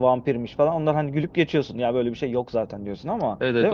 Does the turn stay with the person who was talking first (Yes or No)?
No